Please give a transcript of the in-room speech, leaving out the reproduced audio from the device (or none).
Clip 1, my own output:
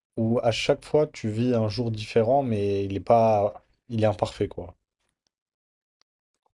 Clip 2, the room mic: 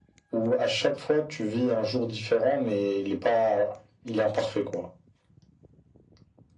none